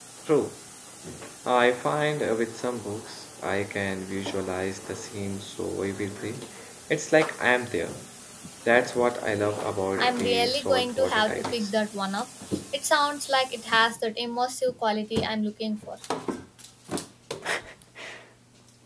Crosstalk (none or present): present